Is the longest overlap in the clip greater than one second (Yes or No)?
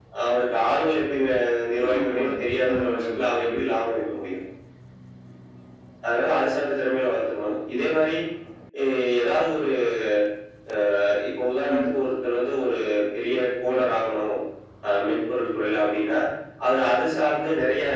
Yes